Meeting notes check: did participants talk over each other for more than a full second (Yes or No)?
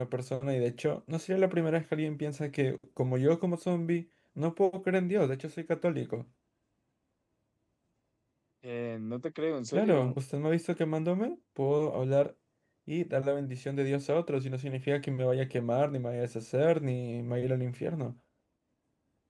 No